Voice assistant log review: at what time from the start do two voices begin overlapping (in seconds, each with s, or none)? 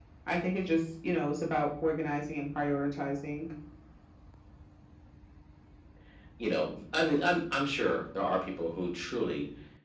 none